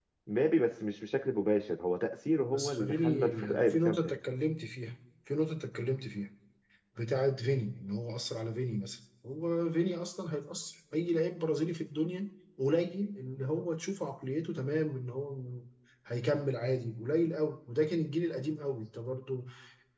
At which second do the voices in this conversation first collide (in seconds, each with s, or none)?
2.5 s